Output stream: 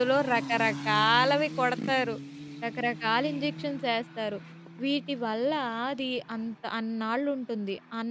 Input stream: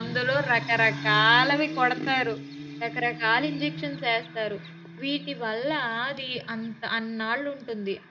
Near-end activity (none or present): none